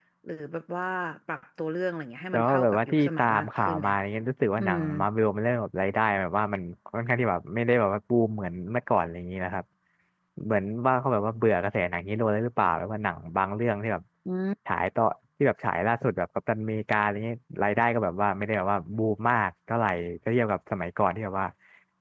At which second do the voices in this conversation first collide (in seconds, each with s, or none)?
2.3 s